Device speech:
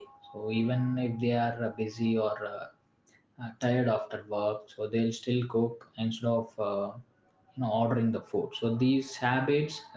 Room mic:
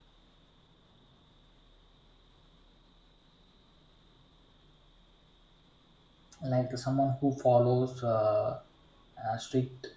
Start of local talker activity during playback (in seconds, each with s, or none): 6.4 s